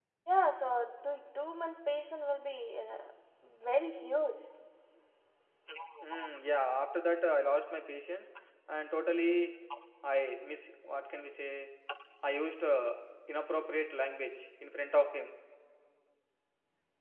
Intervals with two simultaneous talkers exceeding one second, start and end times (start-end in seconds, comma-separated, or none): none